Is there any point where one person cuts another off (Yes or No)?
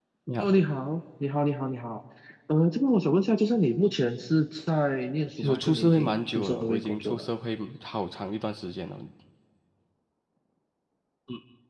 Yes